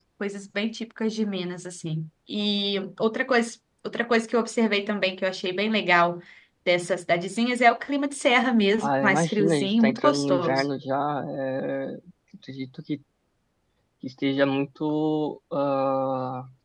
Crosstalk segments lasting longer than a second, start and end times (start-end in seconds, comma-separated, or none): 8.8-10.6